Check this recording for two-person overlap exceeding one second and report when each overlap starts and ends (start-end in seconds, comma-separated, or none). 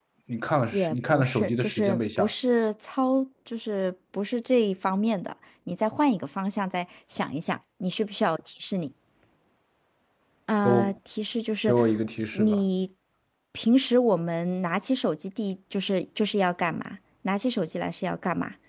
0.7-2.3